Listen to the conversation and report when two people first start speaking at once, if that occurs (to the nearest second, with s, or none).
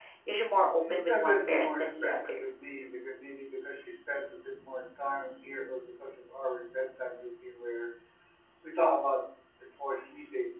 1 s